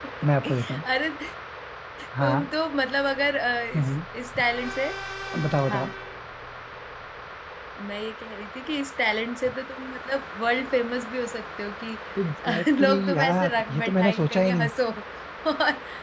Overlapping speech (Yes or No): Yes